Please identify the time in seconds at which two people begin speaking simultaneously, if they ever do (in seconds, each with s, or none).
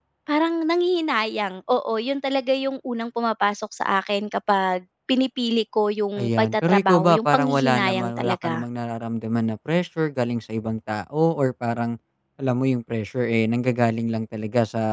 6.2 s